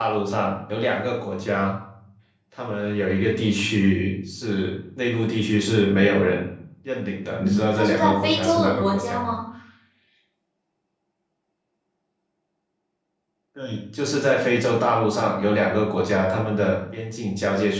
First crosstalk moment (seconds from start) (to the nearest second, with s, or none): 7 s